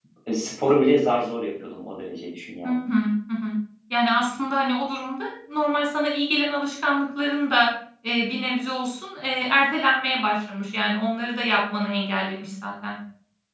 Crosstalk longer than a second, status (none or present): none